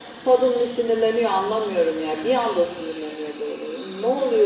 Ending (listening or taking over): taking over